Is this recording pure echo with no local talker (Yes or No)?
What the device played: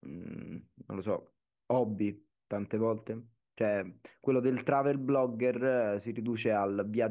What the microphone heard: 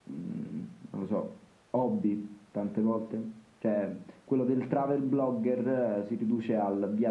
Yes